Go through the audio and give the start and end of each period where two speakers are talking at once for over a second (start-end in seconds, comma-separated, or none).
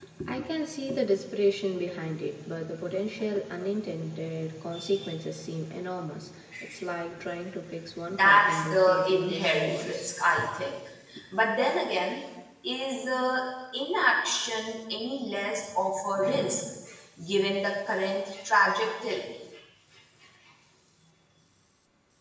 8.1-10.1